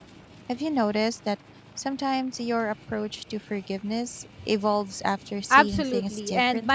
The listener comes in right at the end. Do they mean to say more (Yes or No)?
Yes